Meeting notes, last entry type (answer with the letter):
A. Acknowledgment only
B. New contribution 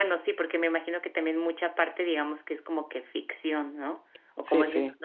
A